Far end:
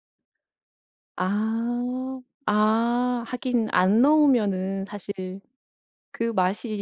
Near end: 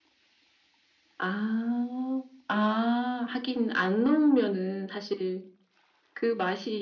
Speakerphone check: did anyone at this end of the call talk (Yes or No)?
No